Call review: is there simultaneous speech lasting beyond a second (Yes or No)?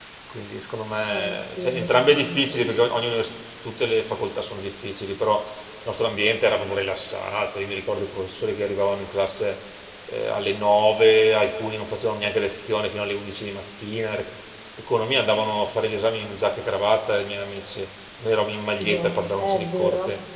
Yes